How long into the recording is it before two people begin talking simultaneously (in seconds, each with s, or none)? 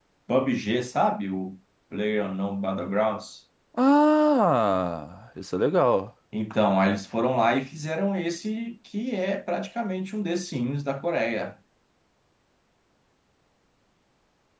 none